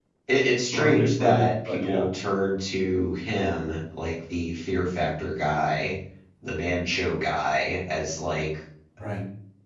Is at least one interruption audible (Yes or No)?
Yes